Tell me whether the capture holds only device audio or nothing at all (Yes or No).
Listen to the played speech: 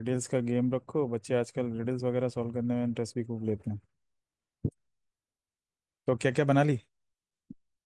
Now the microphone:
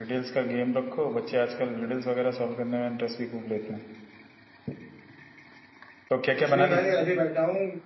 No